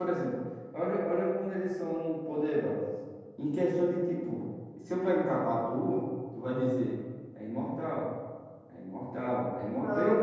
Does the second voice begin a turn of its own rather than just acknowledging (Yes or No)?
Yes